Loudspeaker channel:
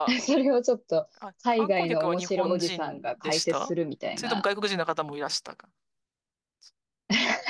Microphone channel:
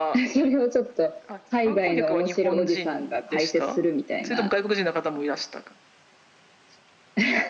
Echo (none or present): present